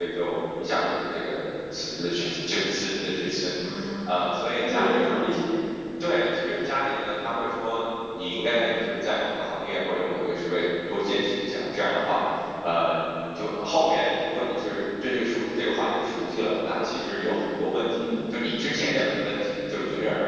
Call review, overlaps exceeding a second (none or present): present